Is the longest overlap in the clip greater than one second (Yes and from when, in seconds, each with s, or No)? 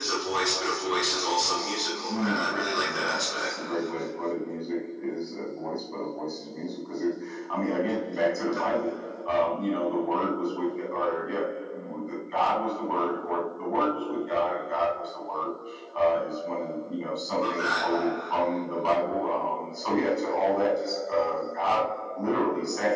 Yes, from 2.1 s